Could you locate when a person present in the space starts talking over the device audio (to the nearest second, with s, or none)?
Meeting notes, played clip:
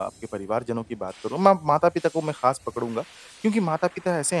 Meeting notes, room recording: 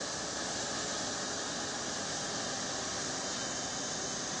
none